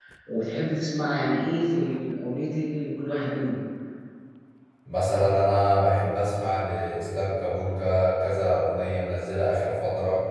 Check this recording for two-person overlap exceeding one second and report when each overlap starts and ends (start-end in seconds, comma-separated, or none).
none